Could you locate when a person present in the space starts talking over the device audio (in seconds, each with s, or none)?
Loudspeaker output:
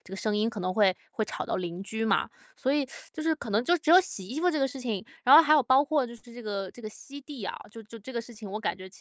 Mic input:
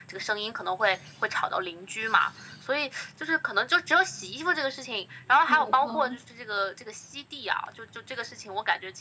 5.5 s